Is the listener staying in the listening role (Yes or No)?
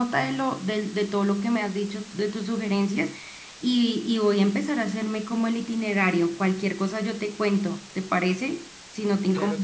No